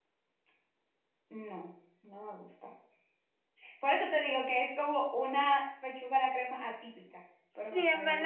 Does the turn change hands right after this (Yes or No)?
Yes